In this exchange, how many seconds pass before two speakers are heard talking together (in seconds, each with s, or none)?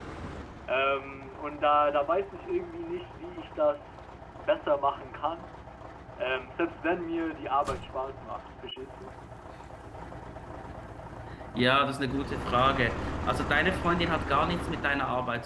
none